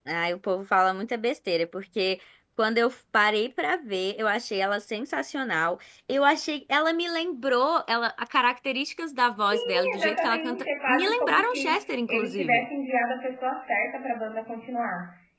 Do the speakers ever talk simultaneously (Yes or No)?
Yes